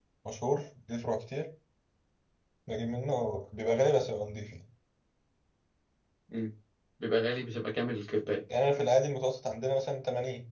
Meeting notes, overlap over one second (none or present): none